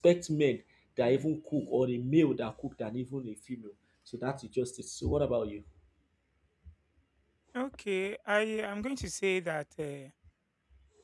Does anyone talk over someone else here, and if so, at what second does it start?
none

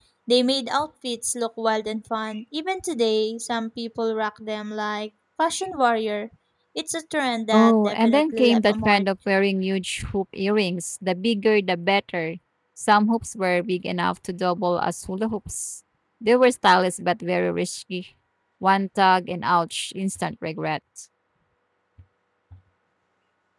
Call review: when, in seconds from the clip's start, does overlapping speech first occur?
7.5 s

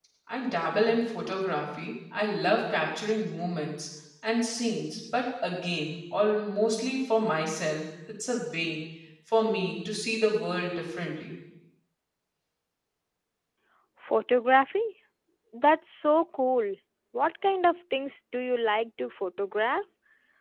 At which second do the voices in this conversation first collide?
none

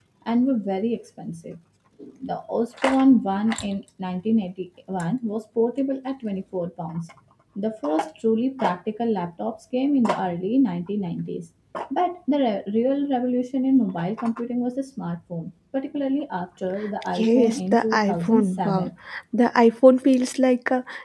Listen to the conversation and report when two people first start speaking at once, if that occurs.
17.2 s

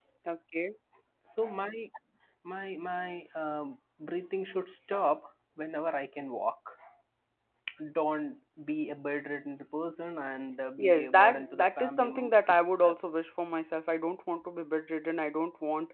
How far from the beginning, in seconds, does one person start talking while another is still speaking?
10.8 s

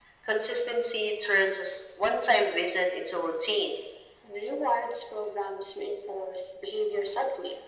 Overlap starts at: none

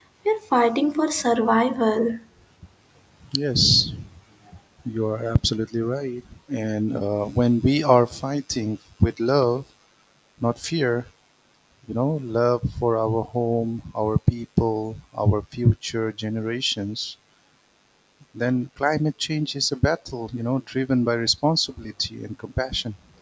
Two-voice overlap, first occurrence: none

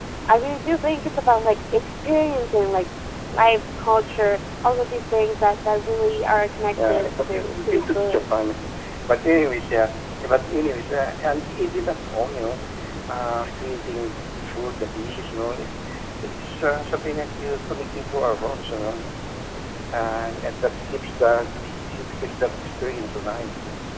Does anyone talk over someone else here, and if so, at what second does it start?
6.7 s

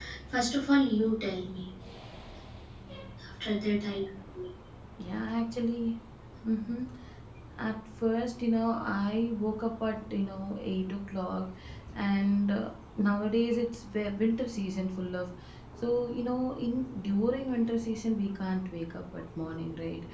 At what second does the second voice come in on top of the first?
none

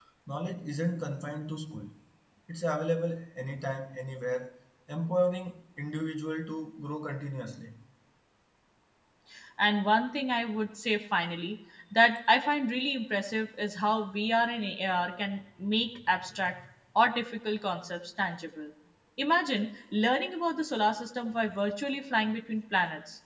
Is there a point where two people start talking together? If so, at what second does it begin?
none

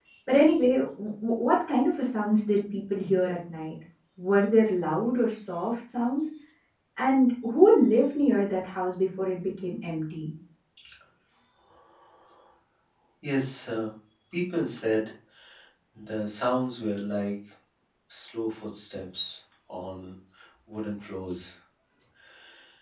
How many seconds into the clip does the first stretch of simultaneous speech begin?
none

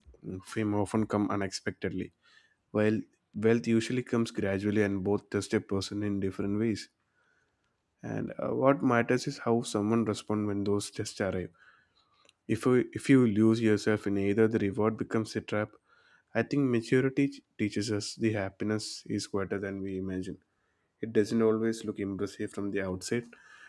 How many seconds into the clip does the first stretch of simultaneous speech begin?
none

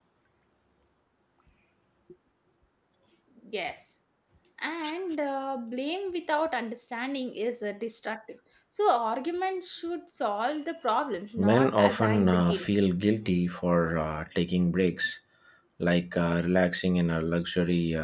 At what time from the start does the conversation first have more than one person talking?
11.4 s

